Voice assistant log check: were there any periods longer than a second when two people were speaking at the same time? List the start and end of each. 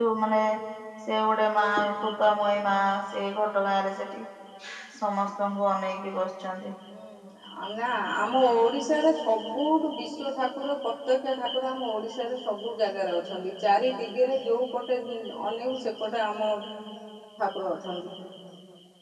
none

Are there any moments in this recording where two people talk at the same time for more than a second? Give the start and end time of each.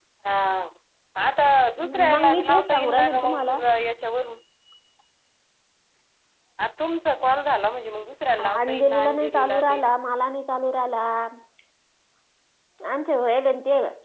2.1-3.6, 8.6-9.8

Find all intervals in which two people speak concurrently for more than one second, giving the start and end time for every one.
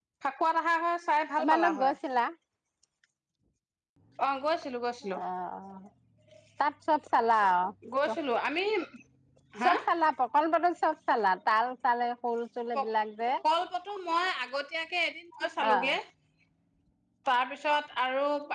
none

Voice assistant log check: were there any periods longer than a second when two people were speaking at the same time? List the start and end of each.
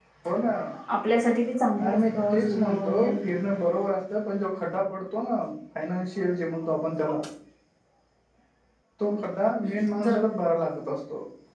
1.8-3.1

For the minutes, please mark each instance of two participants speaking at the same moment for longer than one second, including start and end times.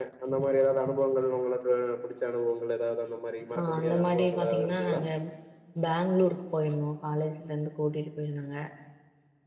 3.6-5.0

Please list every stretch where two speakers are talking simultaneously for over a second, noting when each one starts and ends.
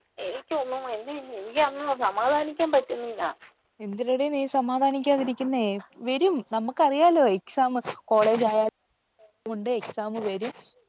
none

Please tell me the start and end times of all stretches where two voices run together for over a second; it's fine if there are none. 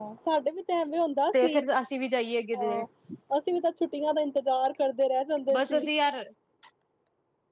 none

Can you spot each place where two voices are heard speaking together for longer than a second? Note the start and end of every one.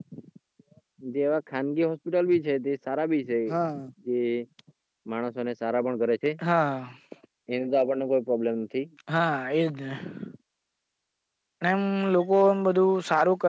none

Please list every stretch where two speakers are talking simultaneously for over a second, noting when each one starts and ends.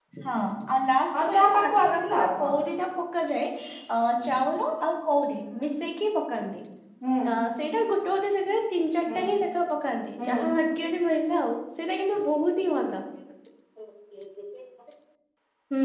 1.2-2.5

